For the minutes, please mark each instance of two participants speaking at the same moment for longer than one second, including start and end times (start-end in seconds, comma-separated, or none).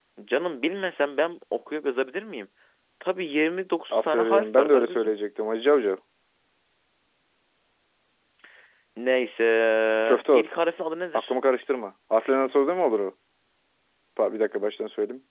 3.9-5.1